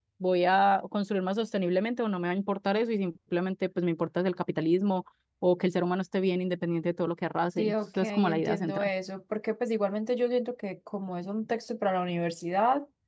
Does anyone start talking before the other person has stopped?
Yes, from 7.6 s

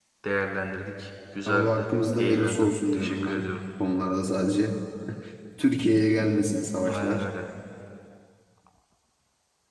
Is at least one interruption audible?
Yes, from 1.5 s

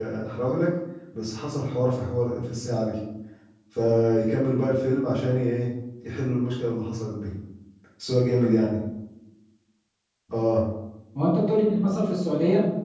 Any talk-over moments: No

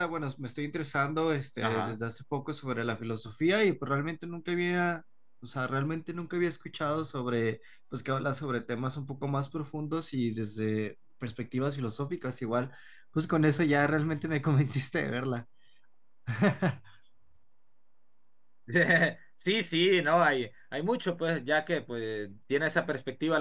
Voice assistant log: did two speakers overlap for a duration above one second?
No

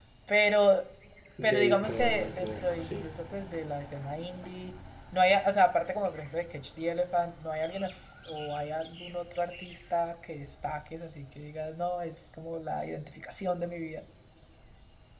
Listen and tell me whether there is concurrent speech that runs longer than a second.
Yes, from 1.4 s

